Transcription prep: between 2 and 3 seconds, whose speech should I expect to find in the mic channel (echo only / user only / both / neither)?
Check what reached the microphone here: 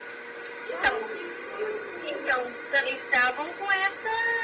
both